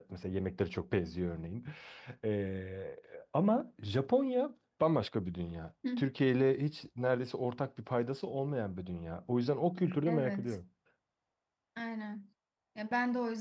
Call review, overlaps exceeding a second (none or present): none